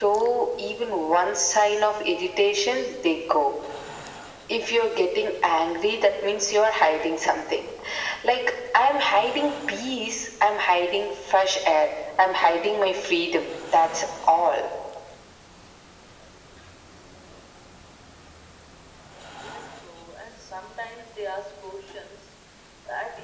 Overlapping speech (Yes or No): No